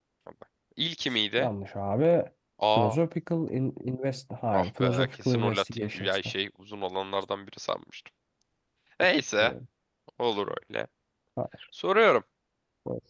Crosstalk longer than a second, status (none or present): present